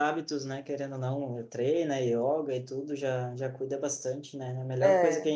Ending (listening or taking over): listening